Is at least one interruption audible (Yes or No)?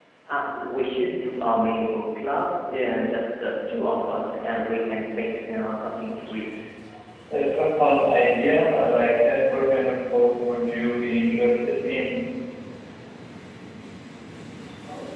No